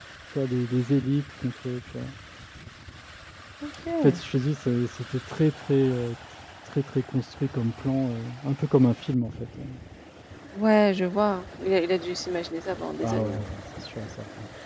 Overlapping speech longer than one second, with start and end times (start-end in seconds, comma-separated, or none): none